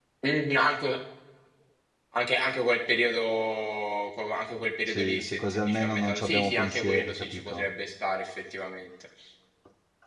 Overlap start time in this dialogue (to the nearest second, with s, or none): 5 s